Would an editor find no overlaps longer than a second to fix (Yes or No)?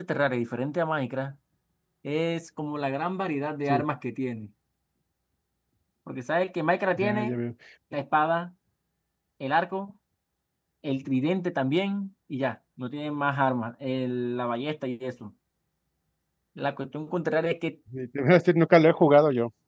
Yes